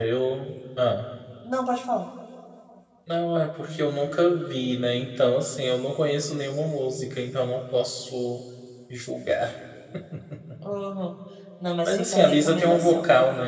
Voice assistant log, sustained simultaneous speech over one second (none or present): present